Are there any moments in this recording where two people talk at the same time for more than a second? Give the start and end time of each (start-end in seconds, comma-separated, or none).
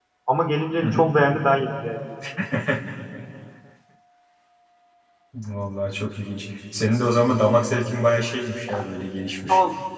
none